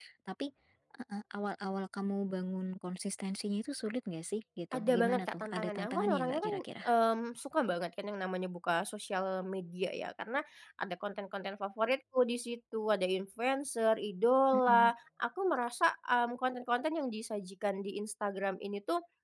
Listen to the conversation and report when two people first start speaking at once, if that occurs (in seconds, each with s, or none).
4.7 s